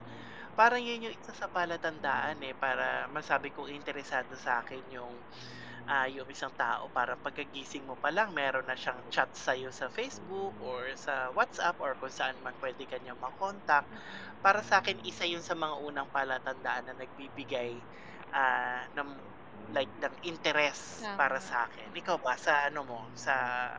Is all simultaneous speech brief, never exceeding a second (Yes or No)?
Yes